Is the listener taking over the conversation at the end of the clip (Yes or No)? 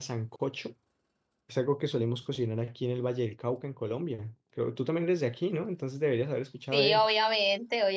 Yes